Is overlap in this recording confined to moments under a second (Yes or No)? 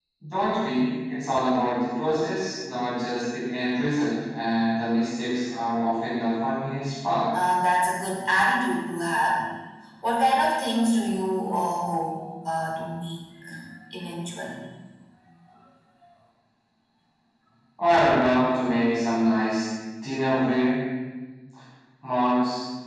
Yes